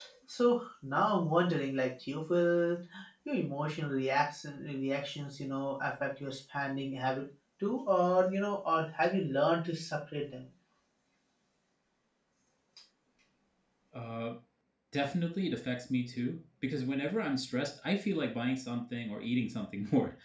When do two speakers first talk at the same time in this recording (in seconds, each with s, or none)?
none